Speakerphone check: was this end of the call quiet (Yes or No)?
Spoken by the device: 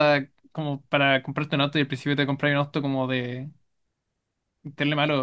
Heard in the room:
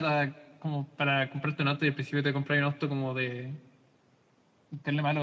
Yes